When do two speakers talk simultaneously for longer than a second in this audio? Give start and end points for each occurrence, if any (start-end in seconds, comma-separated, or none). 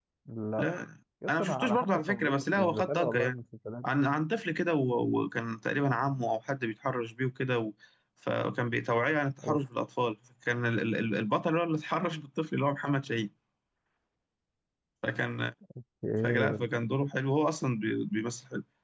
1.3-3.3